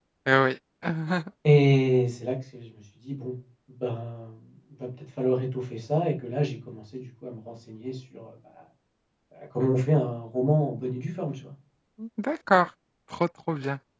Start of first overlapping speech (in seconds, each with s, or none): none